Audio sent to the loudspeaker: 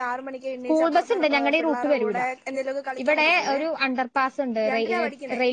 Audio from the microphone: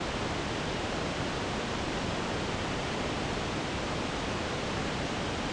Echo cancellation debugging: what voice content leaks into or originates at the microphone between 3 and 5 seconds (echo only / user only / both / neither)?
neither